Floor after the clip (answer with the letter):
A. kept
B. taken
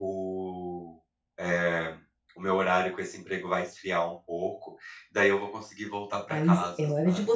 B